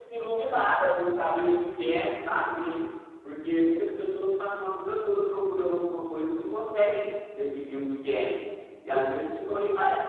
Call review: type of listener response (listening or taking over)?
listening